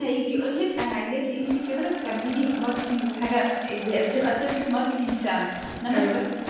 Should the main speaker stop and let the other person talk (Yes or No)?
No